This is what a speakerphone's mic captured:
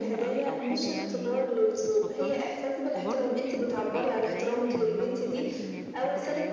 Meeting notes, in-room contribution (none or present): present